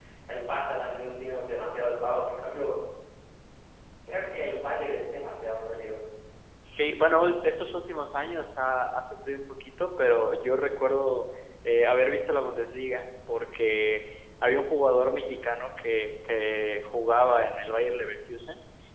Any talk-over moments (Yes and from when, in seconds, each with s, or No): No